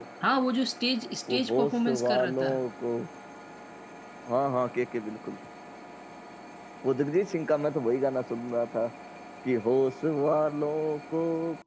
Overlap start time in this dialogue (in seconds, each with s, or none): 1.3 s